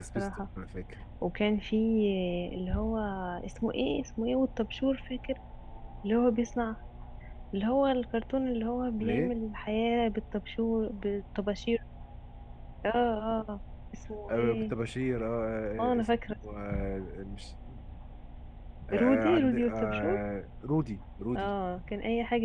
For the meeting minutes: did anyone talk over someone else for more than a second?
Yes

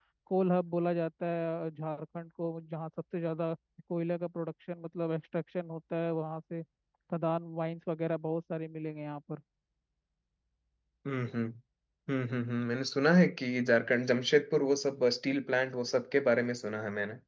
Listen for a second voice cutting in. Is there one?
No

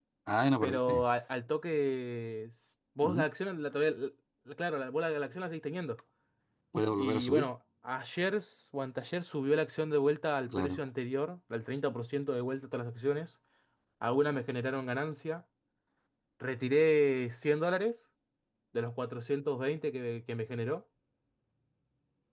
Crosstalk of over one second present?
No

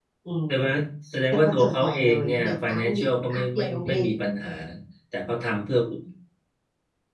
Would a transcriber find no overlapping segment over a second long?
No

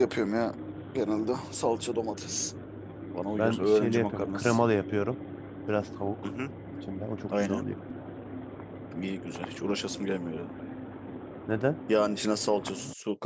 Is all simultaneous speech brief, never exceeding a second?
No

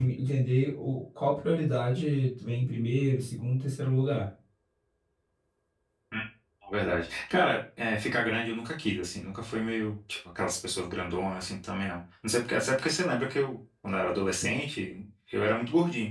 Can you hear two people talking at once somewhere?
No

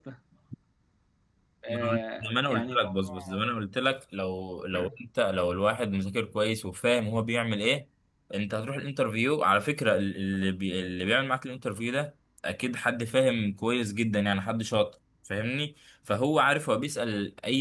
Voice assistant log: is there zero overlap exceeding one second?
No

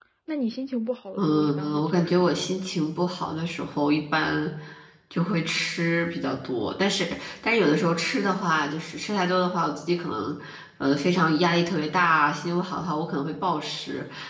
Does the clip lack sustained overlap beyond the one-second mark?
No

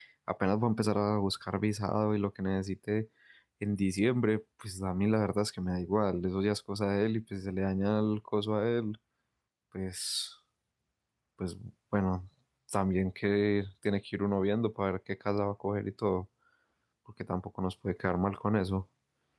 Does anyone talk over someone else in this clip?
No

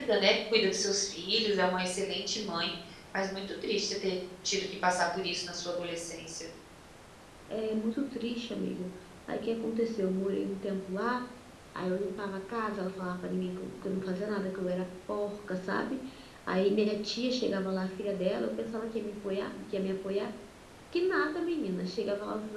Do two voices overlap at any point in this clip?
No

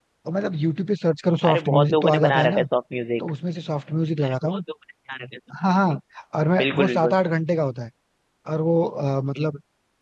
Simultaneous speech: Yes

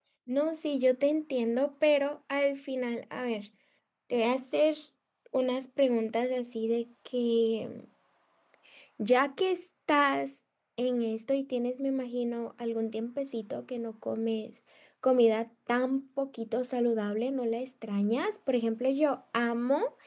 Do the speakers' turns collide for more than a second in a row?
No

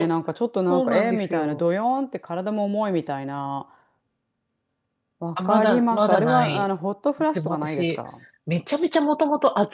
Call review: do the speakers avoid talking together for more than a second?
No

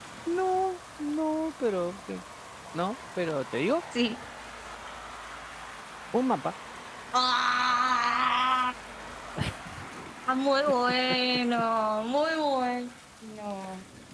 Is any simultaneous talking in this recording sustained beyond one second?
No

